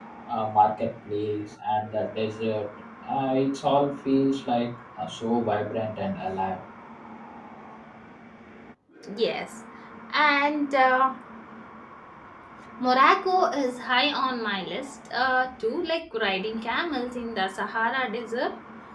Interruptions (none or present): none